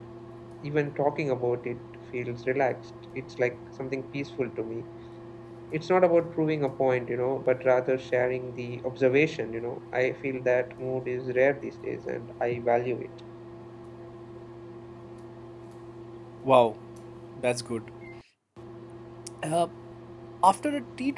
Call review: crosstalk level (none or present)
none